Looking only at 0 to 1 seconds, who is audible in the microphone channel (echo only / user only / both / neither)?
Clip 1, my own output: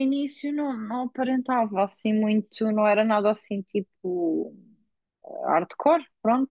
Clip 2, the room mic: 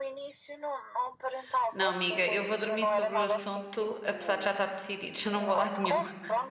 echo only